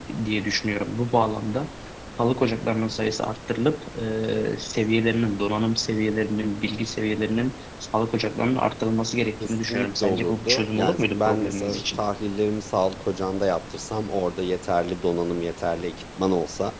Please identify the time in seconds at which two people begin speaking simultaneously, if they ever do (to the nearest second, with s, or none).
9 s